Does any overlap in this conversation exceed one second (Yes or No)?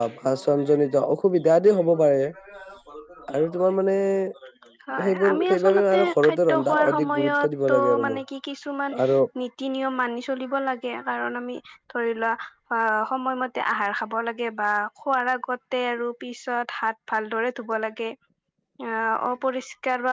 Yes